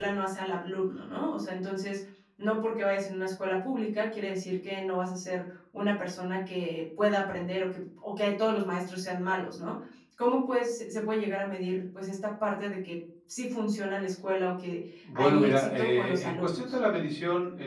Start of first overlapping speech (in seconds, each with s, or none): 15.0 s